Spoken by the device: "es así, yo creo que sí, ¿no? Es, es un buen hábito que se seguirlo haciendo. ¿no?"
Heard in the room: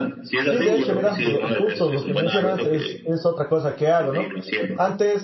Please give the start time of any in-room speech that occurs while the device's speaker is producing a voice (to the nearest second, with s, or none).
0 s